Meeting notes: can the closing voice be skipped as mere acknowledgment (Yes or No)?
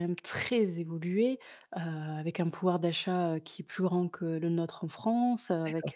Yes